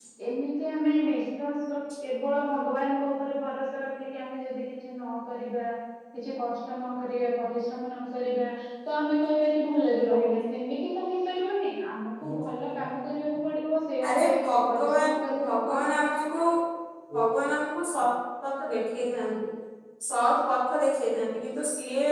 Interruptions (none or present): present